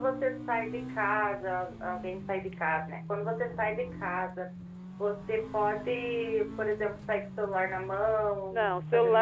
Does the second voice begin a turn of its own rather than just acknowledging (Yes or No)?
Yes